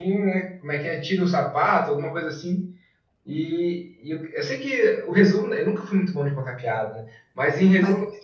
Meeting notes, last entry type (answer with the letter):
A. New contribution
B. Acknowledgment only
B